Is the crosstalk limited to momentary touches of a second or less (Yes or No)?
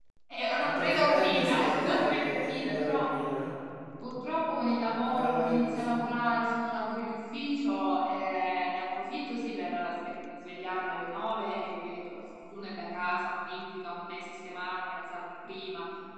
No